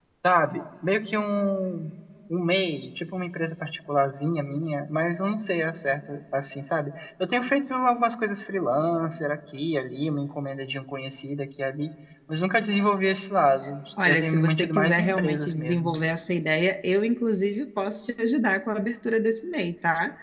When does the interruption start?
14.0 s

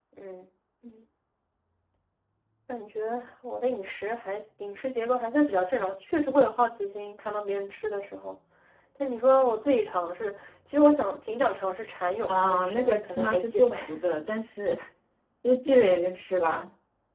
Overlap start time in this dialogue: 12.3 s

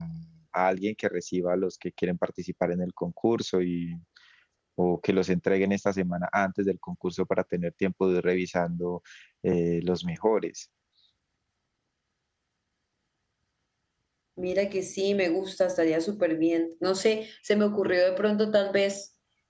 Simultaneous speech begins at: none

